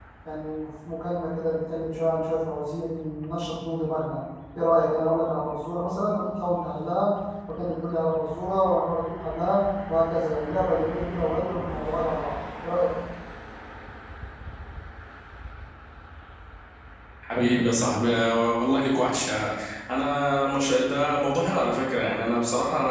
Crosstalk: none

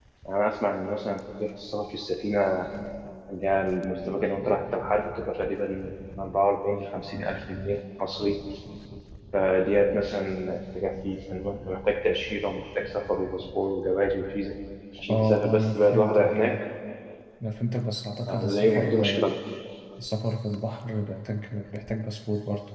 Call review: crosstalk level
present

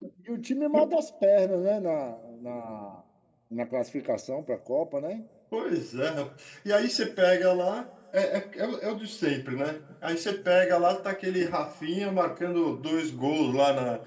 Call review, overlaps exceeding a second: none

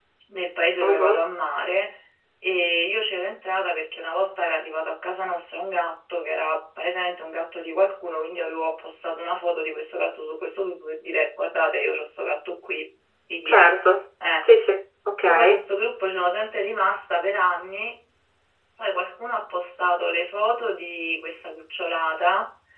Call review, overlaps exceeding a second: none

